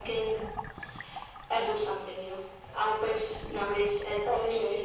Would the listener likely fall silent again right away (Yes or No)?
No